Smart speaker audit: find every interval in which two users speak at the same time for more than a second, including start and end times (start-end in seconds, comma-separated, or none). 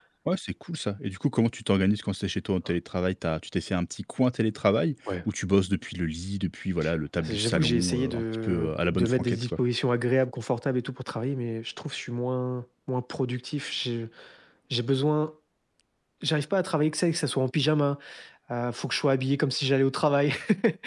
7.2-9.6